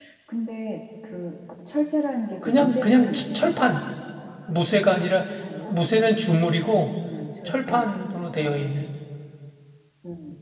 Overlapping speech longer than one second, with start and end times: 2.4-3.8

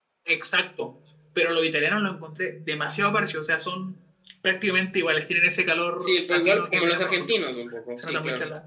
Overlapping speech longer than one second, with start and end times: 6.0-7.4

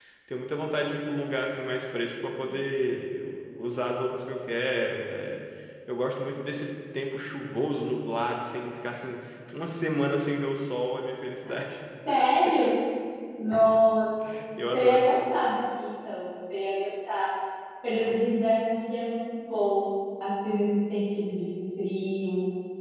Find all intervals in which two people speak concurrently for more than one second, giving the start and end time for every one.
none

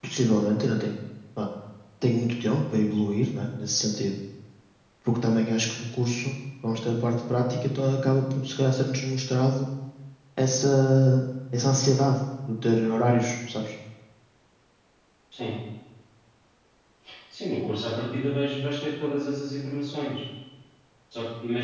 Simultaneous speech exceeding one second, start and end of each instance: none

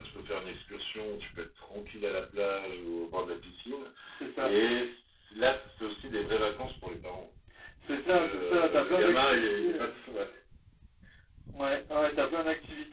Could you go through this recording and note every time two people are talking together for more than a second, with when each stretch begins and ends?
7.9-10.0

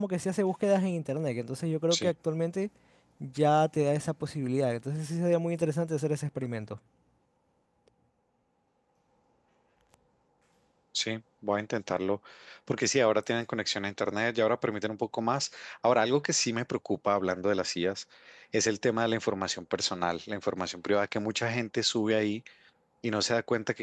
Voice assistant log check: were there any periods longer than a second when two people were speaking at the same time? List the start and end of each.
none

